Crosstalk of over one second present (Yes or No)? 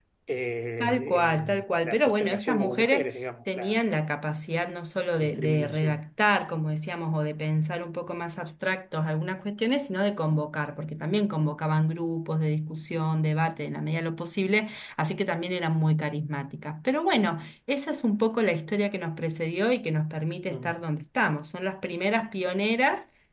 Yes